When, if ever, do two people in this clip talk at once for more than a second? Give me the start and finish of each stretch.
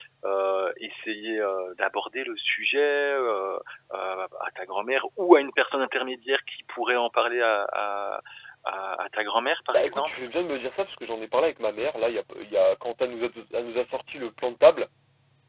none

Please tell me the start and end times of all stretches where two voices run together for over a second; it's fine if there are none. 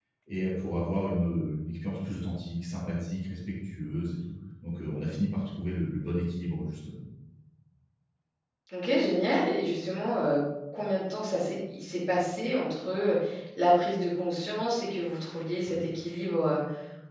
none

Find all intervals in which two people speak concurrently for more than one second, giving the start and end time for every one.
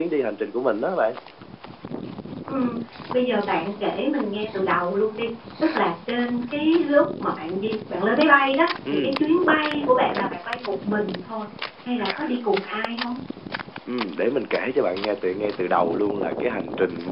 none

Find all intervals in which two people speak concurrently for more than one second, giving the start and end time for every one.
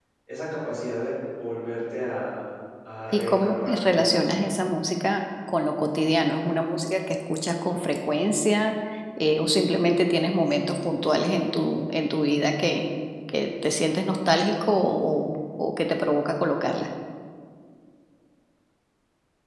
3.1-4.4

